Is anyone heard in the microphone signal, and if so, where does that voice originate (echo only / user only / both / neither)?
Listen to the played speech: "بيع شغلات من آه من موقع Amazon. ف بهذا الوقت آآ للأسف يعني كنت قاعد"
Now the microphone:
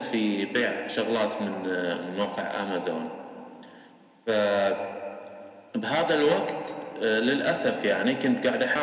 echo only